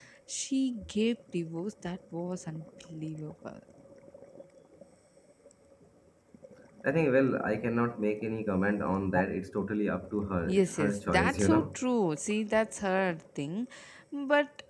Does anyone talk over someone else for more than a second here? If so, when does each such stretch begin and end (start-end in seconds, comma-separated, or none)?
10.5-11.8